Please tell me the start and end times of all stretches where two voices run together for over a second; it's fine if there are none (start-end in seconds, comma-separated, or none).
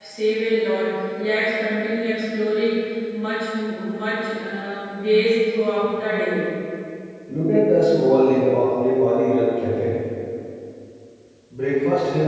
none